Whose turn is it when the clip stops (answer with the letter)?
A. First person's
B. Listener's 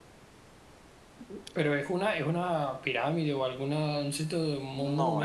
B